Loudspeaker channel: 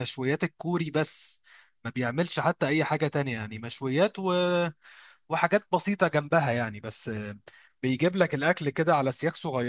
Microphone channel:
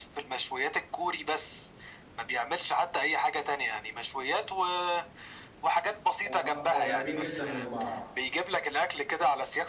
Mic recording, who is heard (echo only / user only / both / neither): both